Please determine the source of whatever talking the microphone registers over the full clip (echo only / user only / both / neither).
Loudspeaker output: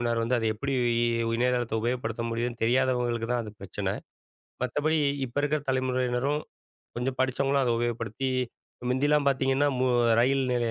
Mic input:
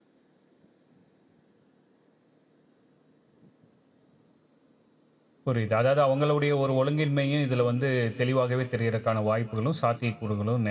user only